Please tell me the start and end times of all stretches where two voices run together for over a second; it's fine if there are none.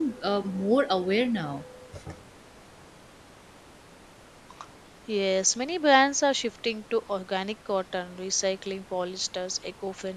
none

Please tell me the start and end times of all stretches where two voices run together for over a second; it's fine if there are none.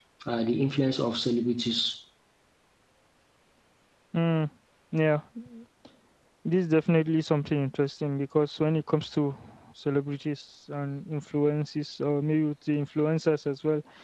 none

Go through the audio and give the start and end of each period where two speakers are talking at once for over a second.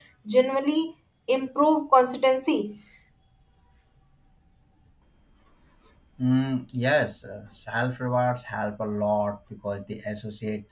none

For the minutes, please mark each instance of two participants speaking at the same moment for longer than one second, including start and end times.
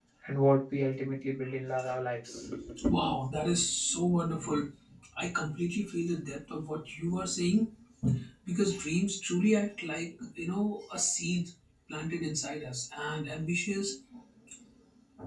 none

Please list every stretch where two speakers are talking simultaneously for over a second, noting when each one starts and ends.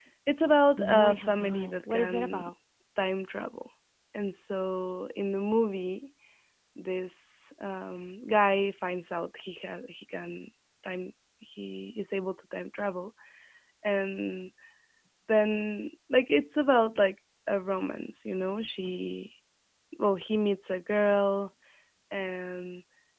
0.9-2.5

